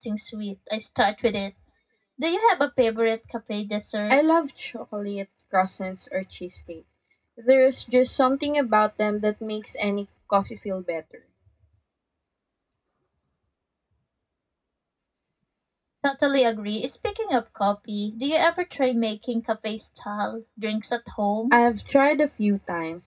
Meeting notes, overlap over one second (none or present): none